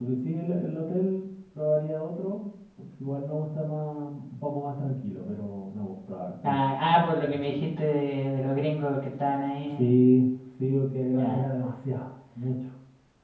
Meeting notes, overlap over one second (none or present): none